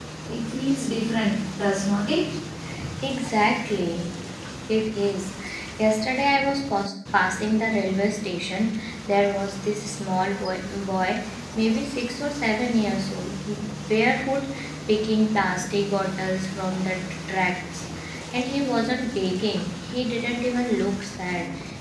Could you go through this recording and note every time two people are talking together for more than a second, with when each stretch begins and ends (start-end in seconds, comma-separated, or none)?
none